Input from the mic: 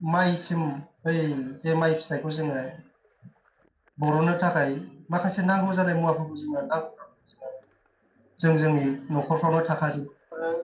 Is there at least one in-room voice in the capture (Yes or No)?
Yes